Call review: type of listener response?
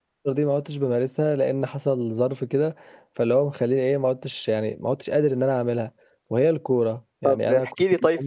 taking over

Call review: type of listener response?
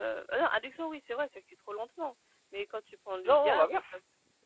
listening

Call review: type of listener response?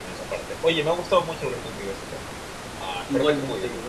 taking over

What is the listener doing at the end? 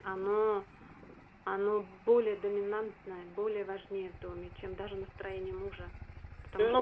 taking over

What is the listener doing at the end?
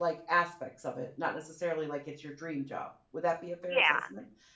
taking over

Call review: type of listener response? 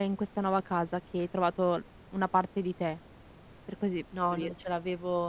taking over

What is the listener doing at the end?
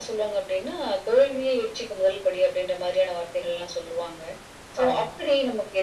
listening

